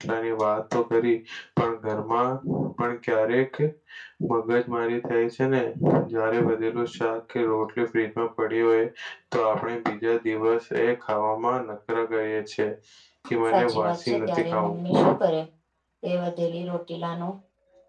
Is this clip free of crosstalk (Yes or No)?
No